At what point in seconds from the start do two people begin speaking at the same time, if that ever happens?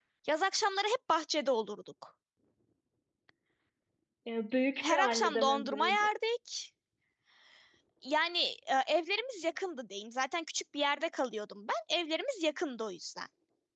4.8 s

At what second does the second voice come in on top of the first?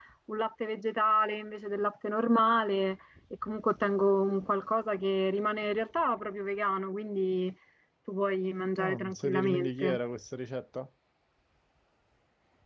8.8 s

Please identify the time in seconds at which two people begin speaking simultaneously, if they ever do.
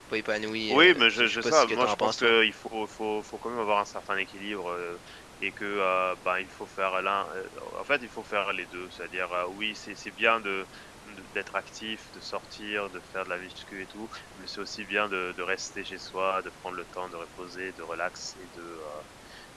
0.7 s

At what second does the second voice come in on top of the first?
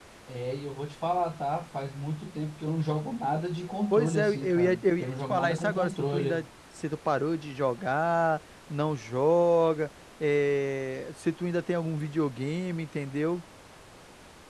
3.9 s

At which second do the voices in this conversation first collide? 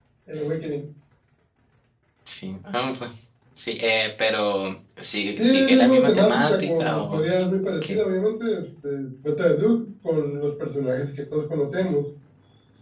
5.4 s

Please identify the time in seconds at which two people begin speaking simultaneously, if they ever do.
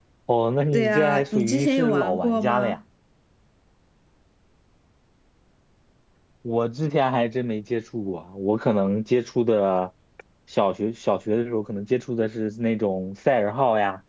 0.7 s

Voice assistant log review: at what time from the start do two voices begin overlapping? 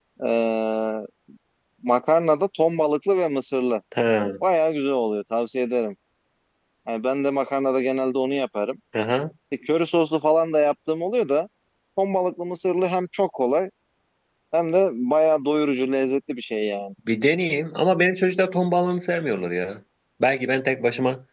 none

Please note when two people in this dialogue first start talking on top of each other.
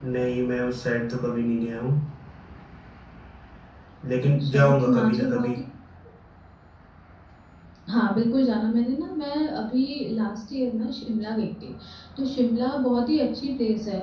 4.2 s

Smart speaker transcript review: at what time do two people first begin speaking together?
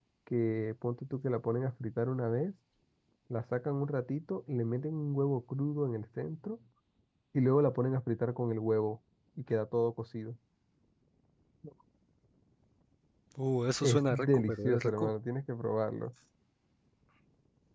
13.8 s

